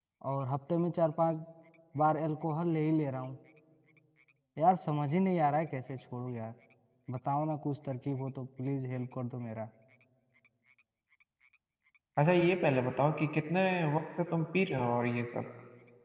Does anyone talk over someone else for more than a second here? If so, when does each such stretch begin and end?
none

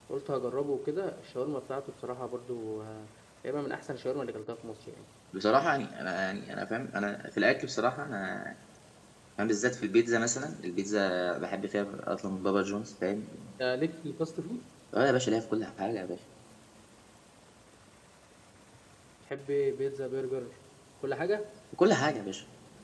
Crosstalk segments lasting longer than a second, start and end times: none

